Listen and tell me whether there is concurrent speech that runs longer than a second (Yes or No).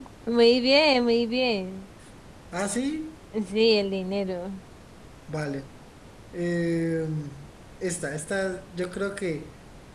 No